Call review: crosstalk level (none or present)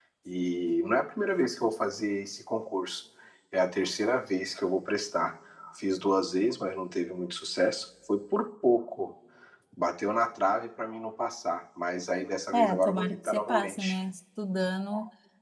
present